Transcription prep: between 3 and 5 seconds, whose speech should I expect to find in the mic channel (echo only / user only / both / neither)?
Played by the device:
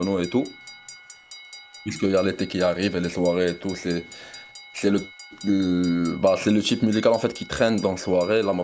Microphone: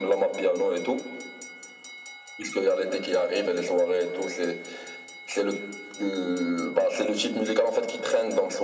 echo only